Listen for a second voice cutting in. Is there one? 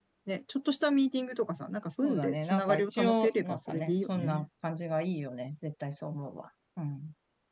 Yes, from 2.0 s

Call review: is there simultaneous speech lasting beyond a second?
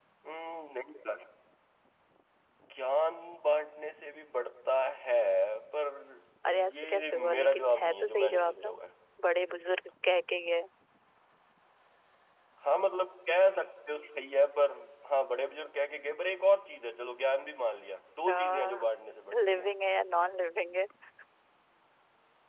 Yes, from 6.6 s

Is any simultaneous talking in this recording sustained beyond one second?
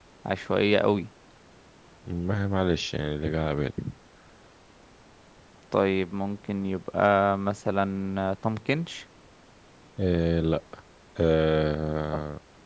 No

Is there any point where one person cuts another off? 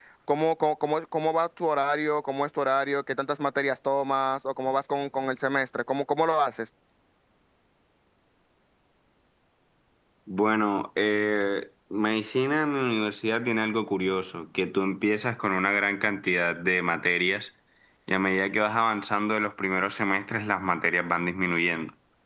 No

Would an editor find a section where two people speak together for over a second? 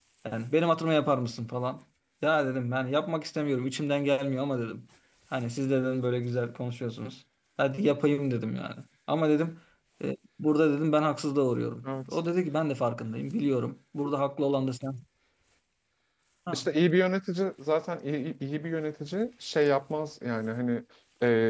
No

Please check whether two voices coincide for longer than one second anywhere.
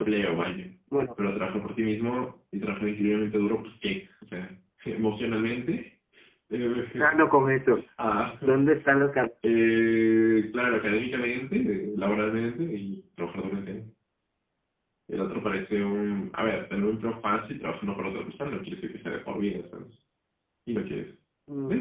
No

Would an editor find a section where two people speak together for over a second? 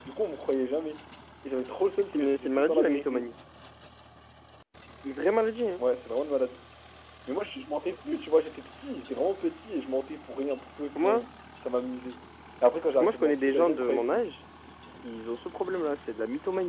Yes, from 2.0 s

